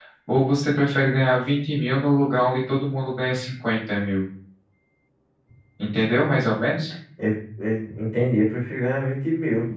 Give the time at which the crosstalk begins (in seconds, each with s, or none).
none